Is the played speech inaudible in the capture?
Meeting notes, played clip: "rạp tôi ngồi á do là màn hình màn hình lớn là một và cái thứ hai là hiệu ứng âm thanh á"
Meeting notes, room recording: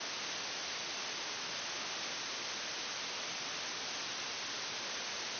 Yes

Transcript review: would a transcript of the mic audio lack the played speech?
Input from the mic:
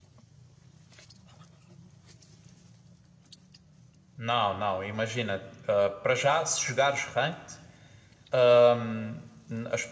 Yes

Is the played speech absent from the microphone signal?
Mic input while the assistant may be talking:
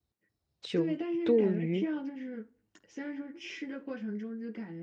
No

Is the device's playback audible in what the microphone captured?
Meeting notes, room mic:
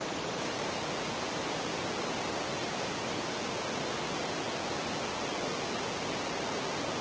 No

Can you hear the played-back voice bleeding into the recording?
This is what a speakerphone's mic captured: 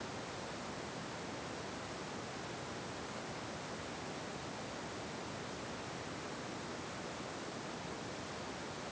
No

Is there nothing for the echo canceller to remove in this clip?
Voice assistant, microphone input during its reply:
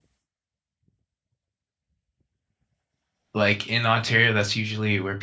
Yes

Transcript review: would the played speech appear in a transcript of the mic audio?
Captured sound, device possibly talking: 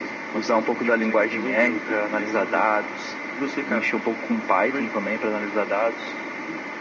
Yes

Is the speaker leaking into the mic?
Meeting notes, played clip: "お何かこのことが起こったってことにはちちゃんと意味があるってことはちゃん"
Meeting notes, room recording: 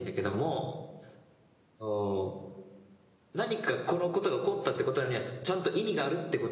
Yes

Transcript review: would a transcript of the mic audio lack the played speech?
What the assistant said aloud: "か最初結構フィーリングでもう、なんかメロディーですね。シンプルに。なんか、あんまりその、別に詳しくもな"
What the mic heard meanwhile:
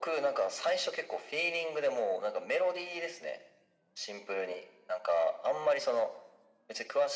No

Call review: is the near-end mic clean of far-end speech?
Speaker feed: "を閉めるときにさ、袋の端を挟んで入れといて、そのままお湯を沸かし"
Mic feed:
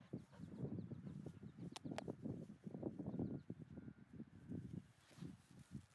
Yes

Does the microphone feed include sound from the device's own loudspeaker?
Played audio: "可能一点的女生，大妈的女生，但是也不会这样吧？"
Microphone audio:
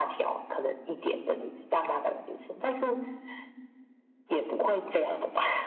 Yes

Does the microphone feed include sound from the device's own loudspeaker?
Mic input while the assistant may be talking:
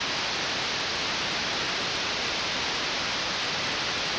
No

